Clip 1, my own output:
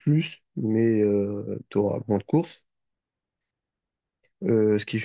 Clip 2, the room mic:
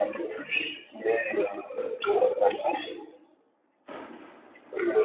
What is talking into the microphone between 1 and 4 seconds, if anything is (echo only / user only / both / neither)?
echo only